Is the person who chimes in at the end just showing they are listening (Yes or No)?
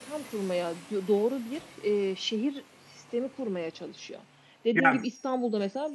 Yes